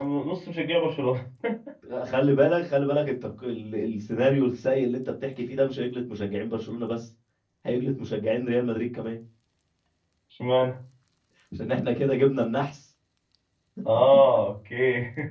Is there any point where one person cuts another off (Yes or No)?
No